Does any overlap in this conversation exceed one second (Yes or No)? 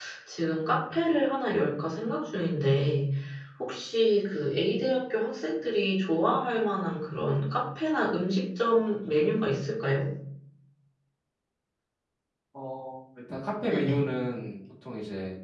No